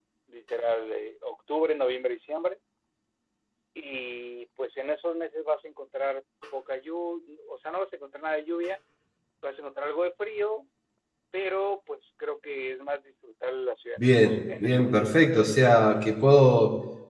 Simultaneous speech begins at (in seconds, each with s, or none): 14.0 s